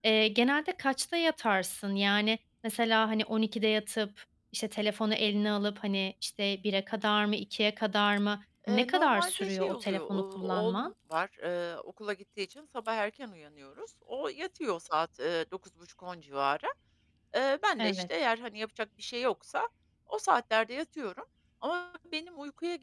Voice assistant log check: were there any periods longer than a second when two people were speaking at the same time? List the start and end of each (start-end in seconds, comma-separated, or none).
8.7-10.9